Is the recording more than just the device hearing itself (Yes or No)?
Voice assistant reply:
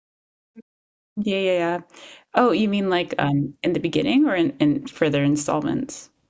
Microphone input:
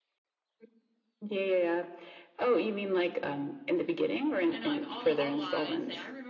Yes